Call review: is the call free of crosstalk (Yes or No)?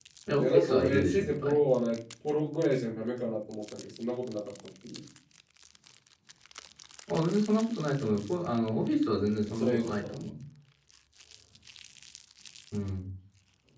No